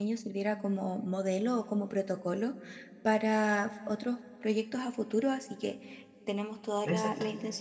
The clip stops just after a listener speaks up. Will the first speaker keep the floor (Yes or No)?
Yes